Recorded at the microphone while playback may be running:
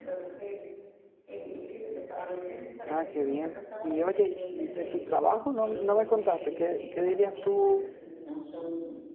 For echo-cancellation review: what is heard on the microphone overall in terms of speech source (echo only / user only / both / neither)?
both